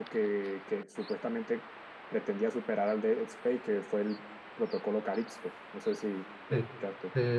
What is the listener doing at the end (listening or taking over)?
taking over